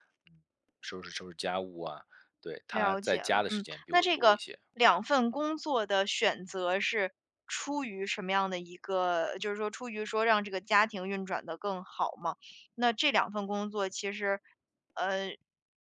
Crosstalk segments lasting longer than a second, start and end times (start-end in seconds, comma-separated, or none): 2.7-4.4